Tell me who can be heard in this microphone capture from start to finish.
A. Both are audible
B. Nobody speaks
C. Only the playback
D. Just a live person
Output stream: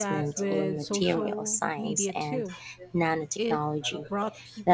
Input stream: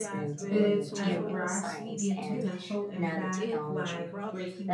A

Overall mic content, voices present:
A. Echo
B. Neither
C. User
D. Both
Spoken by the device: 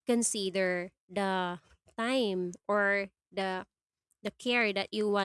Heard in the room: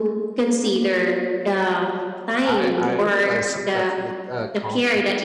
D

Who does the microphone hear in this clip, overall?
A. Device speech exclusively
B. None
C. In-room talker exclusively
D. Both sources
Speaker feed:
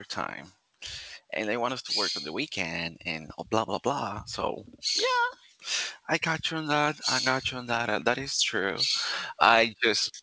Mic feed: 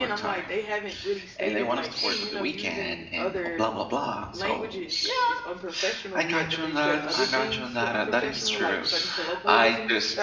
D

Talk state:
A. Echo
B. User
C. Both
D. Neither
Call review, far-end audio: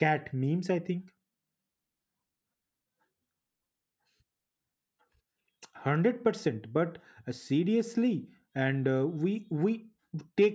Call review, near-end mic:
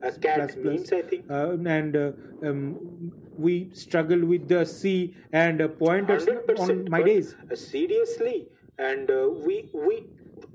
C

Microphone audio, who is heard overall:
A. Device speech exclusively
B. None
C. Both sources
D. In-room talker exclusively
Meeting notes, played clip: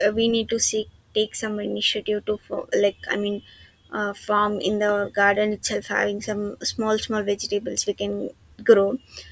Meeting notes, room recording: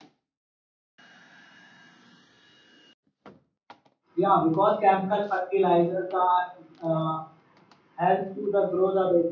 D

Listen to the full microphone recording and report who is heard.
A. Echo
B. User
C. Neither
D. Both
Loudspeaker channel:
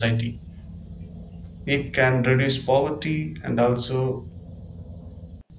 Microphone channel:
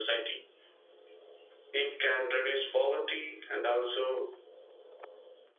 A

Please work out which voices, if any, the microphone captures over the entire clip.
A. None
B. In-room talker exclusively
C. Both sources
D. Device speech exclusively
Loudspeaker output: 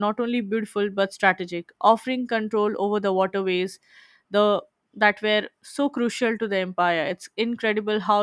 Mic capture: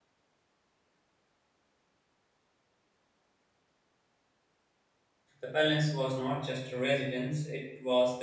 B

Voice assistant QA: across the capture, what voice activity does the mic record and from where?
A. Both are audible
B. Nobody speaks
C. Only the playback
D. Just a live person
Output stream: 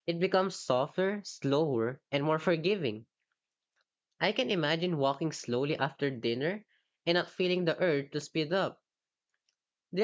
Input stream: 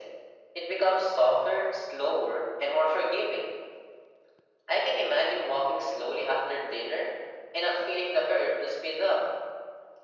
C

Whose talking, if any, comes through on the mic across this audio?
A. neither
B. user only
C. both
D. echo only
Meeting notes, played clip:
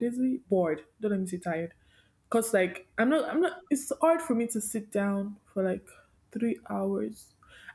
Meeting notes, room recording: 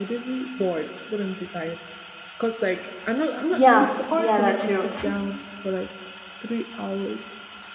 C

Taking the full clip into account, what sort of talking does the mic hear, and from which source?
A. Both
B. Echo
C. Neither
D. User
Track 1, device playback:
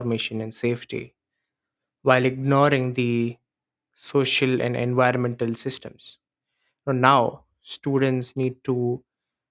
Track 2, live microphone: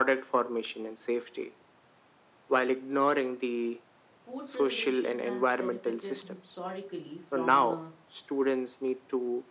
A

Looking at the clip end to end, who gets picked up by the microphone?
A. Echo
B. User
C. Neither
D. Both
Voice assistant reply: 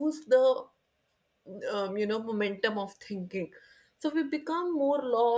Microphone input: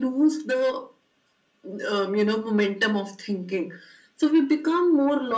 A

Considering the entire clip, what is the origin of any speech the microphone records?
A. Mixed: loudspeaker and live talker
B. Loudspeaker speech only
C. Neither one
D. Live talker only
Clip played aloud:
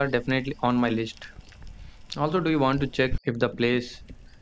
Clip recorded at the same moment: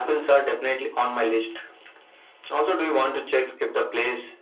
B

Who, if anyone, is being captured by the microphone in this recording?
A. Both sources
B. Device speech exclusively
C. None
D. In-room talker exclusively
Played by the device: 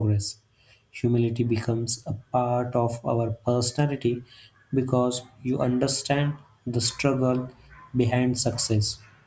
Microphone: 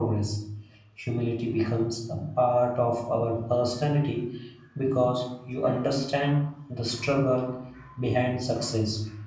B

